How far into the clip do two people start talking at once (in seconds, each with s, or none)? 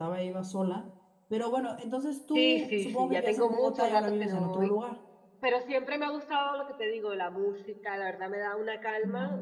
2.3 s